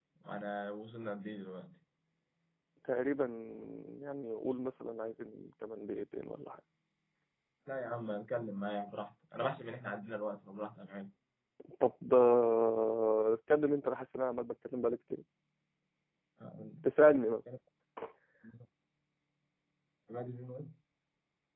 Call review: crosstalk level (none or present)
none